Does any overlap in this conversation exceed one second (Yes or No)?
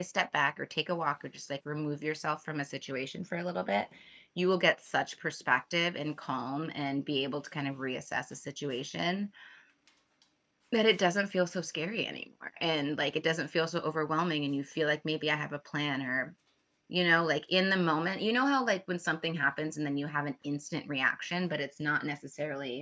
No